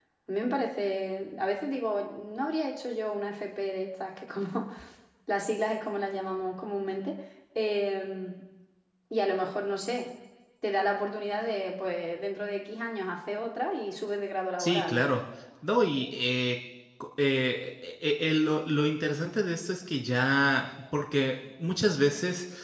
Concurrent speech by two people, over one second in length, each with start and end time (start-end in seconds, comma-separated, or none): none